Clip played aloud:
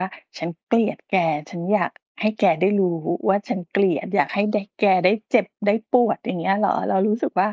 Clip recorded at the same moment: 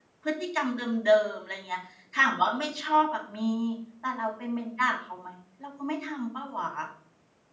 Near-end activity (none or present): present